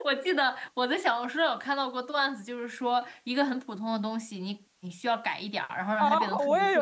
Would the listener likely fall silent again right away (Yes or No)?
No